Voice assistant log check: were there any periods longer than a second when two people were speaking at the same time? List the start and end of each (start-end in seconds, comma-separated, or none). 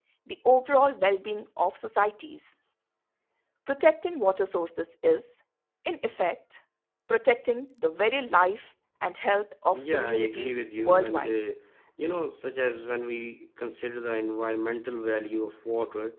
9.7-11.5